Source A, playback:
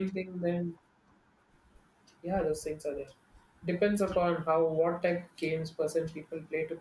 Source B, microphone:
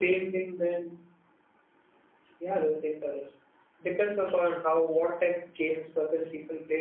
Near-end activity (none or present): none